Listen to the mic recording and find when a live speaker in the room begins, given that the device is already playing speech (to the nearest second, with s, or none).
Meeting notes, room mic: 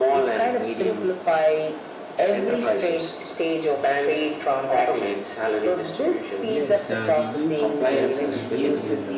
6 s